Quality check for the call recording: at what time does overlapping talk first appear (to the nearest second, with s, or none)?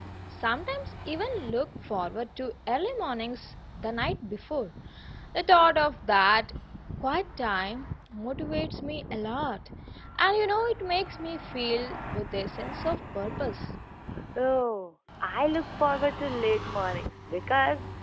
none